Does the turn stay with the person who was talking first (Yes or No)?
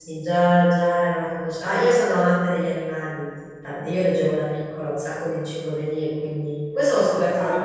Yes